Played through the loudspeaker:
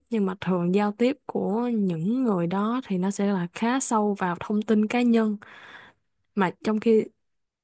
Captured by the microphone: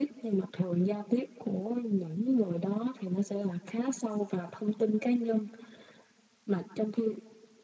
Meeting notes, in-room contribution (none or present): none